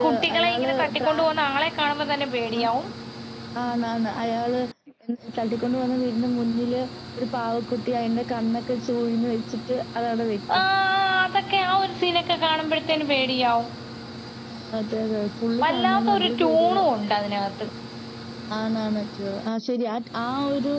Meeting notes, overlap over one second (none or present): present